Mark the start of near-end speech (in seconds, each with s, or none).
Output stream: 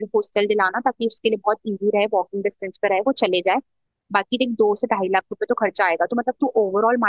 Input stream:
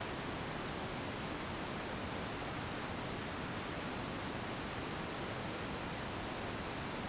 none